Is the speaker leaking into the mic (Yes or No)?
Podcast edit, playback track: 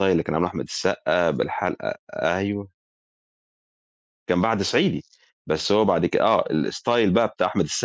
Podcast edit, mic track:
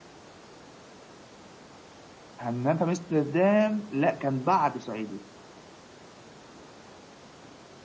No